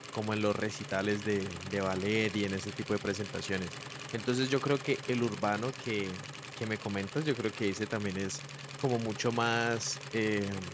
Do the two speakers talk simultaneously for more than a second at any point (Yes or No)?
No